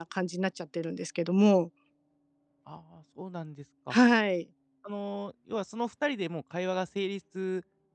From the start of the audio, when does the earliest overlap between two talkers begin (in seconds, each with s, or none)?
none